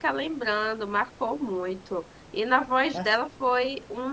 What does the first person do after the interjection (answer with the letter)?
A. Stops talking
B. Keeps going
B